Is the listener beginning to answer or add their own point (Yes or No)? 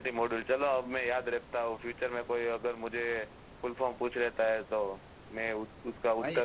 Yes